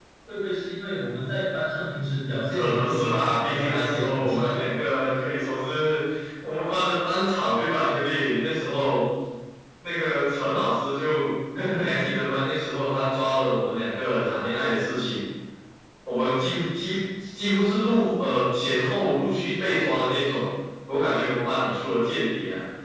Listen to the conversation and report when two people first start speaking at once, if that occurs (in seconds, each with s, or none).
2.5 s